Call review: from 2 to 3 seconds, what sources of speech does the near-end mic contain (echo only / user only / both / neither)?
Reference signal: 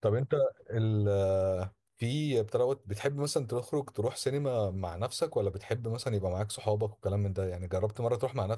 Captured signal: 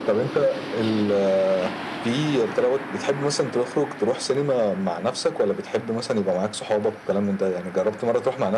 echo only